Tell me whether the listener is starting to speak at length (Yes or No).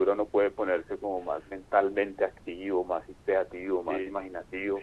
Yes